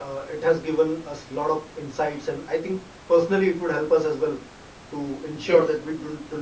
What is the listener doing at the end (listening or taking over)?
listening